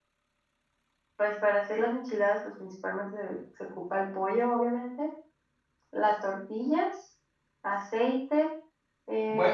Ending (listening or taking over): taking over